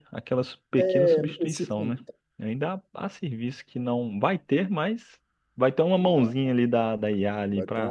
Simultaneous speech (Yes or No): Yes